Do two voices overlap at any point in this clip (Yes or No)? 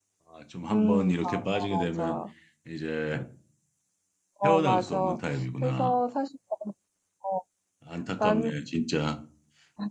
Yes